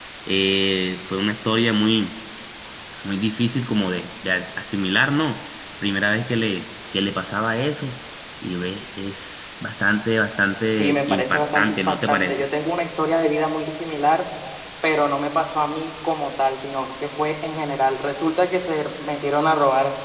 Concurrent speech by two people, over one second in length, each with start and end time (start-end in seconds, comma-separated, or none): 10.8-12.5